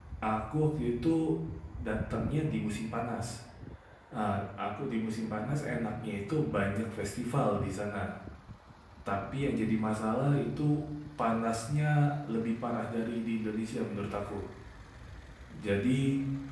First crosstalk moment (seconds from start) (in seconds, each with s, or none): none